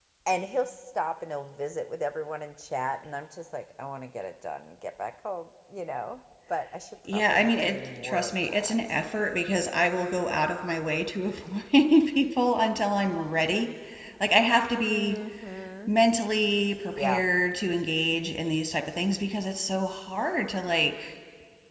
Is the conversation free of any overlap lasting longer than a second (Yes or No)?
No